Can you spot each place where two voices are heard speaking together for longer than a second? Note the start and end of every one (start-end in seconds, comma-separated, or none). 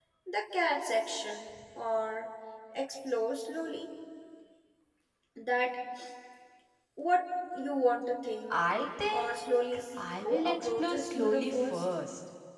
9.1-11.8